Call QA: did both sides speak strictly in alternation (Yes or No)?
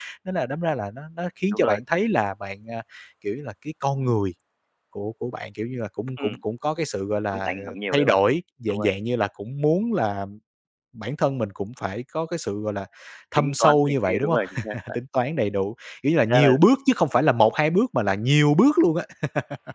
No